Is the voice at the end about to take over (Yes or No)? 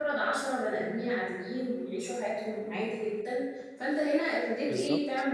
No